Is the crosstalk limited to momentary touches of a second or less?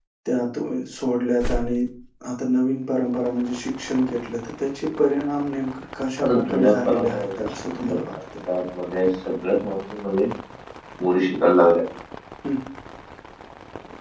No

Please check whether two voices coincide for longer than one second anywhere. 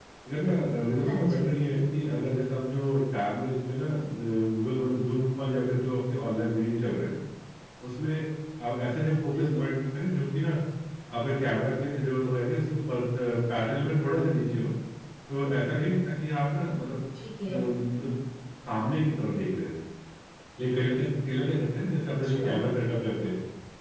No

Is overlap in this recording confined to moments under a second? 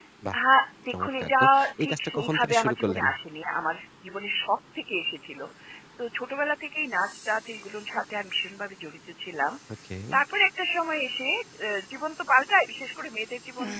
No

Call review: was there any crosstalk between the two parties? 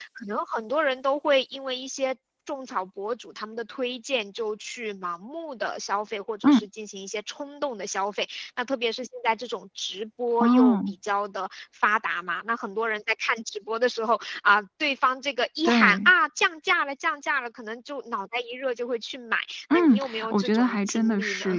Yes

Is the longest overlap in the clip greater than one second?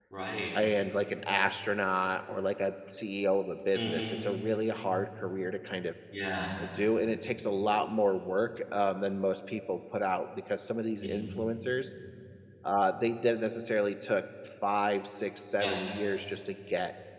No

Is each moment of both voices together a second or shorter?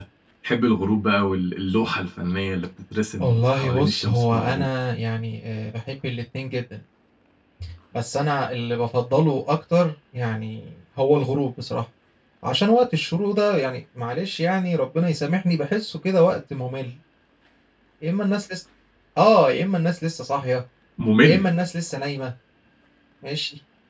No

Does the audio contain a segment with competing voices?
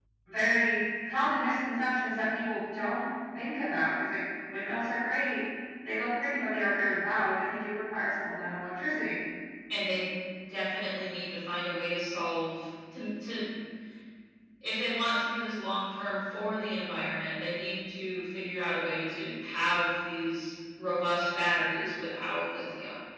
No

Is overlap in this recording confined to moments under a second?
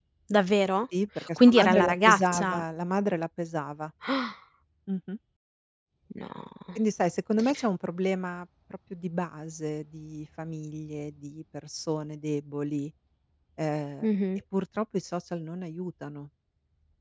No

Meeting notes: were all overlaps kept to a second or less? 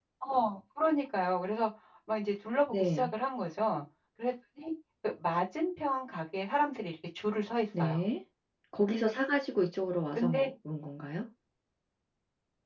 Yes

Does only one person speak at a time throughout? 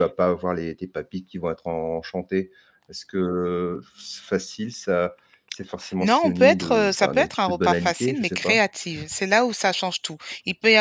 No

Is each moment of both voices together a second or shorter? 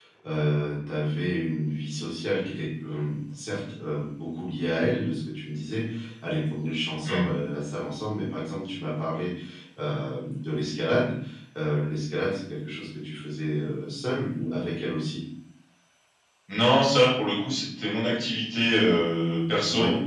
Yes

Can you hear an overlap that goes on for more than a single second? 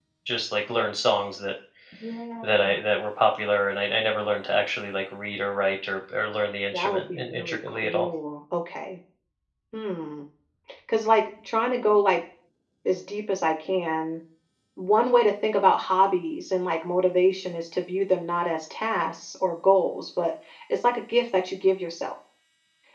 Yes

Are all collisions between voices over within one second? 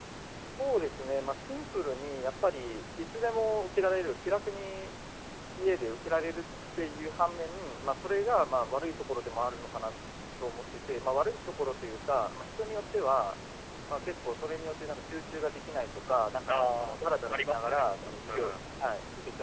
No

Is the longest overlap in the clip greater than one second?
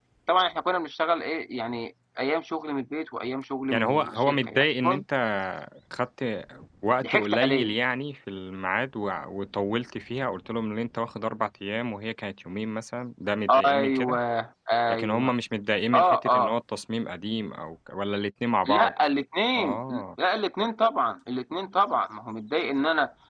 Yes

